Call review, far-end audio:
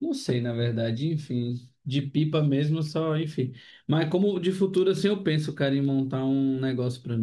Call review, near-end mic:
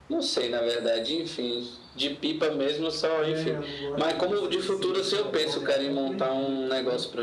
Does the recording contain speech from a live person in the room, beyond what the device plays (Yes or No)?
Yes